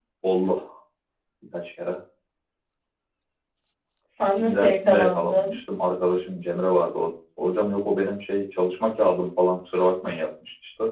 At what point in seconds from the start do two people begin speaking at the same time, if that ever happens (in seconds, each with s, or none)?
4.3 s